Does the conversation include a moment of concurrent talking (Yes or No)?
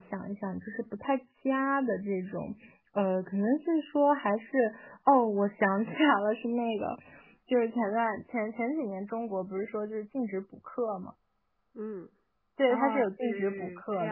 Yes